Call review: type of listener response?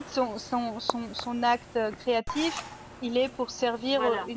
listening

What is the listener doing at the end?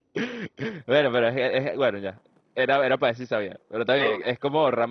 listening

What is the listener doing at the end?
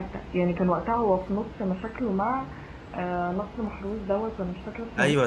taking over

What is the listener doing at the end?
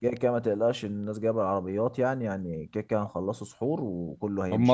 taking over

